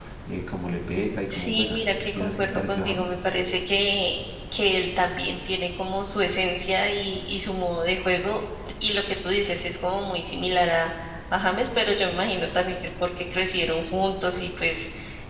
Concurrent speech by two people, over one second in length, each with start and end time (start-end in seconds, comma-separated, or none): 1.3-3.1